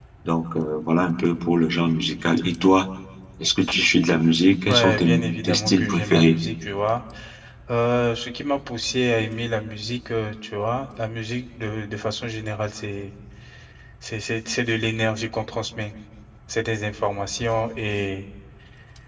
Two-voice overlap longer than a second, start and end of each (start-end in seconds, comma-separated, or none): 4.7-6.4